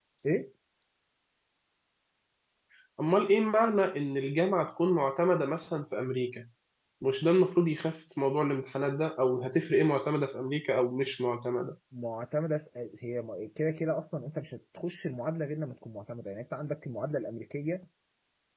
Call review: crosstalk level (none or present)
none